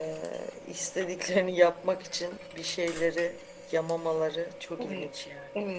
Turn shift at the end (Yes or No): Yes